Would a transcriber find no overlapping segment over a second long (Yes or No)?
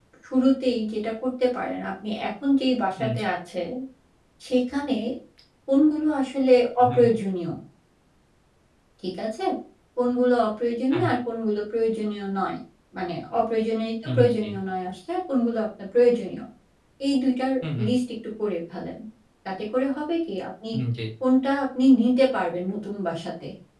Yes